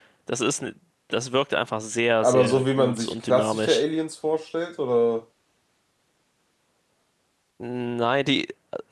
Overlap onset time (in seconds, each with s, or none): 2.2 s